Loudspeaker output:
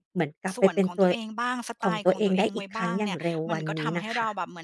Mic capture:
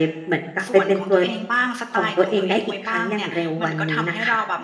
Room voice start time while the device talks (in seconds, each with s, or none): none